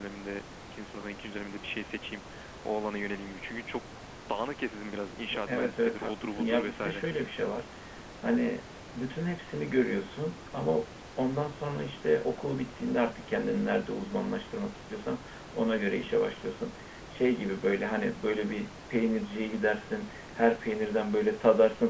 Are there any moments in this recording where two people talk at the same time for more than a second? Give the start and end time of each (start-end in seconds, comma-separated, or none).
5.5-7.0